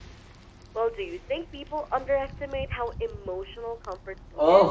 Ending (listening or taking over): taking over